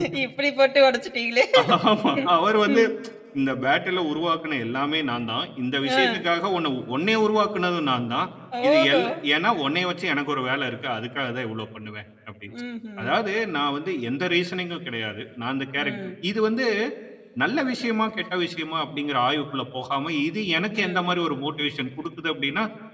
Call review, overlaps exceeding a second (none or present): none